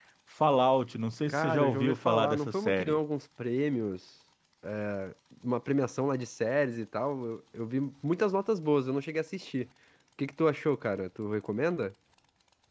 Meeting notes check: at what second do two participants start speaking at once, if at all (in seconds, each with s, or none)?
1.3 s